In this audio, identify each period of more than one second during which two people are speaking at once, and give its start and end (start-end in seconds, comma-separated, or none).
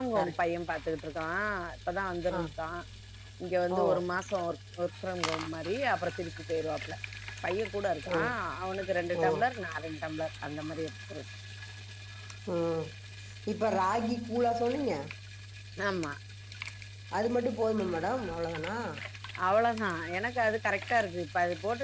none